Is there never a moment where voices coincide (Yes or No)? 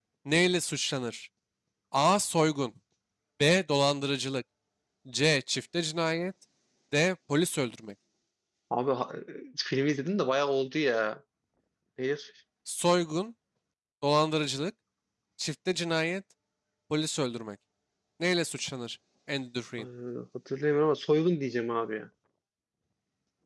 Yes